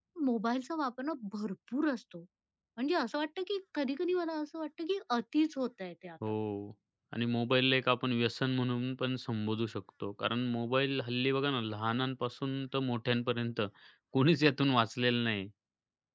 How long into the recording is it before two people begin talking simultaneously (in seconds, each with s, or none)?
none